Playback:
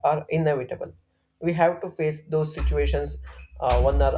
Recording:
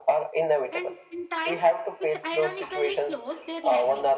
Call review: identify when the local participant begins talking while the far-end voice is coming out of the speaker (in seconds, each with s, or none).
0.7 s